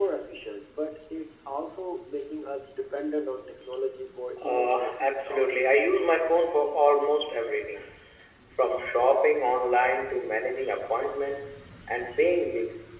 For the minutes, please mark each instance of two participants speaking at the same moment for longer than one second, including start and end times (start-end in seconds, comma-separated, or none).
4.4-5.6